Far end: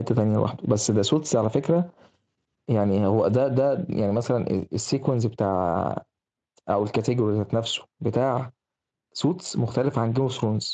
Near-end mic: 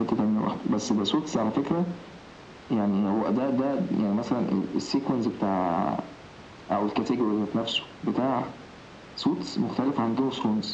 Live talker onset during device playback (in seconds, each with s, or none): none